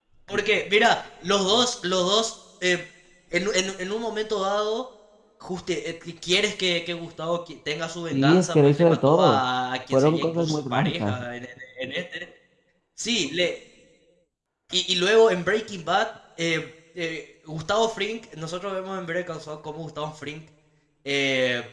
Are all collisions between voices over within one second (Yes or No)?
No